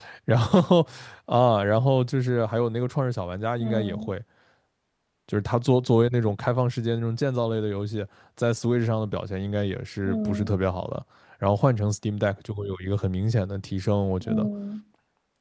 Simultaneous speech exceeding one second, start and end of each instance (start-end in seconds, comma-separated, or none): none